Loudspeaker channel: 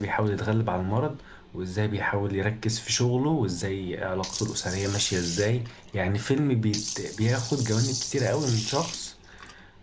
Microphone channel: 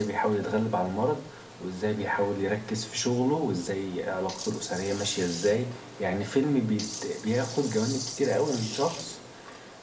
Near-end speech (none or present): none